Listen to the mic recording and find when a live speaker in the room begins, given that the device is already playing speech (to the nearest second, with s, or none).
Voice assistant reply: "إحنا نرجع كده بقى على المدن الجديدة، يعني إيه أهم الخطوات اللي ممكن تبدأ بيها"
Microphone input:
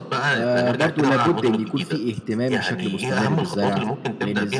0 s